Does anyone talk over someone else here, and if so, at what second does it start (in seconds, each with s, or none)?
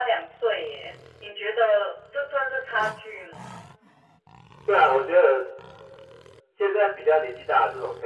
none